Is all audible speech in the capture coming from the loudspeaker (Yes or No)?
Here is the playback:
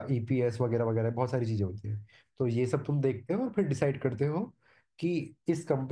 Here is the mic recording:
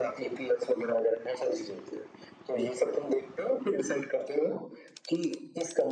Yes